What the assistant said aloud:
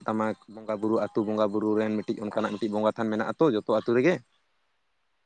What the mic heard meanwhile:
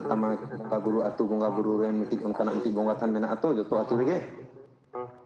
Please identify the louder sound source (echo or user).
echo